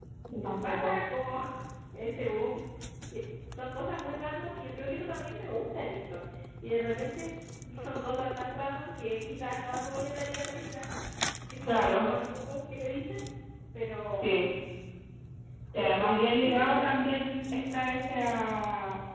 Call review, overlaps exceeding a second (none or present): present